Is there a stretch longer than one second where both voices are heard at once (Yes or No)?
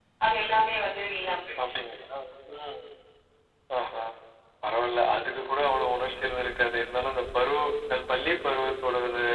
No